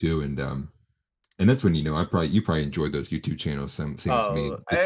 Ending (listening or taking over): taking over